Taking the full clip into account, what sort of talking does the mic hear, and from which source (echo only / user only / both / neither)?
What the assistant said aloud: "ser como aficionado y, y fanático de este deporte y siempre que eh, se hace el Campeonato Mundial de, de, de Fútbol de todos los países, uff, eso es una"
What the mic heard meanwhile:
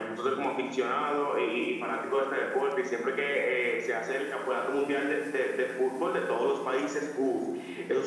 echo only